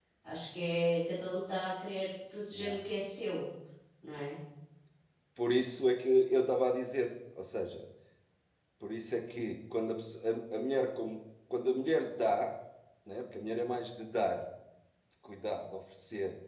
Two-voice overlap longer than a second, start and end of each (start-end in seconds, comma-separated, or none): none